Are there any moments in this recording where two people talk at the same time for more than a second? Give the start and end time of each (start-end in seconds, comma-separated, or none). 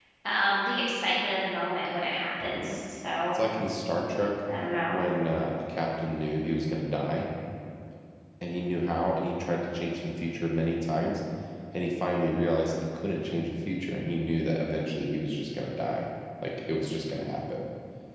none